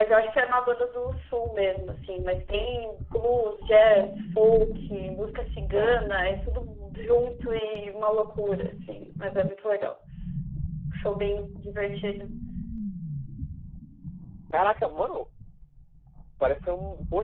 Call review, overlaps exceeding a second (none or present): none